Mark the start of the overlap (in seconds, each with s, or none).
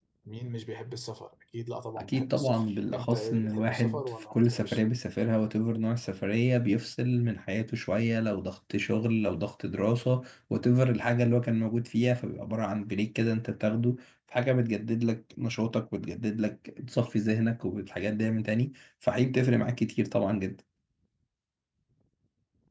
2.0 s